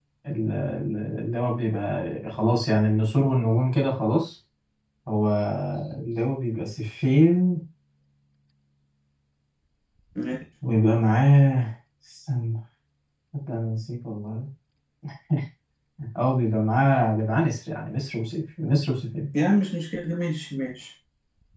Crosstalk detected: No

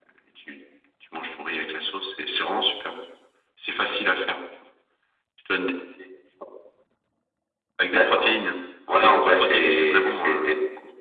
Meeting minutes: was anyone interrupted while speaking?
Yes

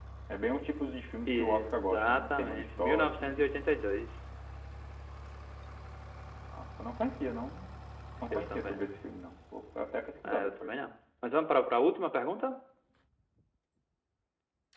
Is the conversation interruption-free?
No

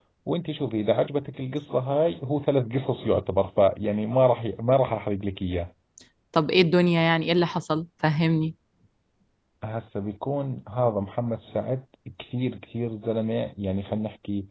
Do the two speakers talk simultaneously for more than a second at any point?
No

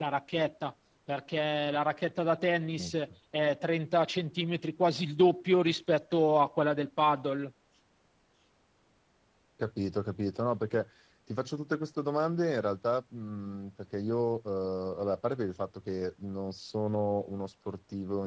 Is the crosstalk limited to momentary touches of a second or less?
Yes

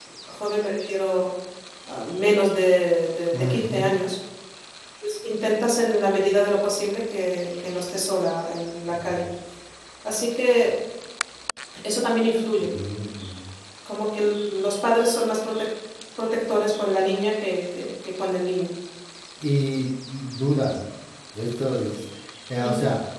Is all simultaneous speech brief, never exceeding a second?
Yes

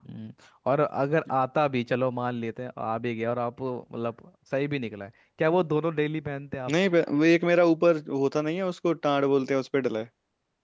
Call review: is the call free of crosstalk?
Yes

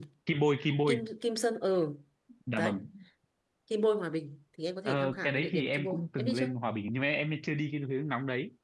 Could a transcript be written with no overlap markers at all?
No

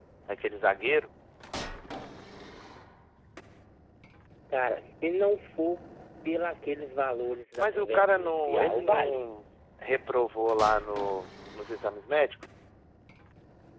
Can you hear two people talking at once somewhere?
Yes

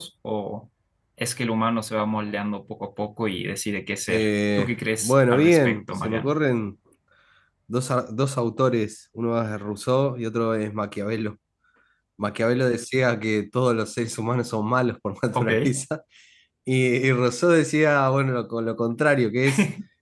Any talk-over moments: Yes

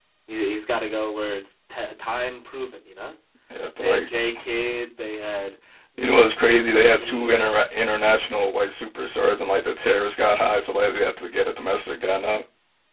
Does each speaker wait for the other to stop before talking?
No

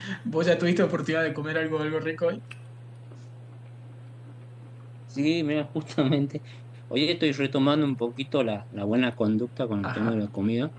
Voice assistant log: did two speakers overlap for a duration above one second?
No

